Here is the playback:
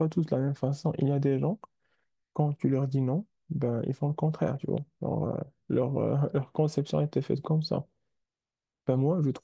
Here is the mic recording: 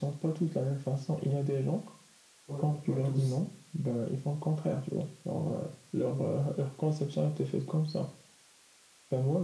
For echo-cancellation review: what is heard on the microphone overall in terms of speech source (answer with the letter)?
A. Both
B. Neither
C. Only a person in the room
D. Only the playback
A